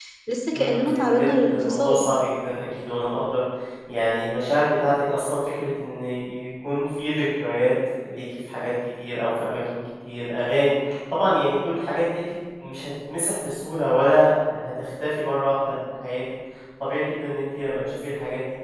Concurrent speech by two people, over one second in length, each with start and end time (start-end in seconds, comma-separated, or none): 0.5-2.0